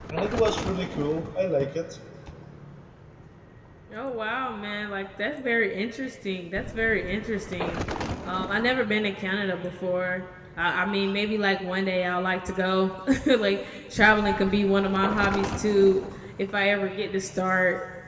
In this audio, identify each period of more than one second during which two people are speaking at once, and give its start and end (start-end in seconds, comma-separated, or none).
none